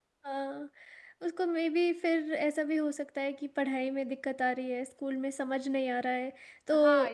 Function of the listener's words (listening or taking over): taking over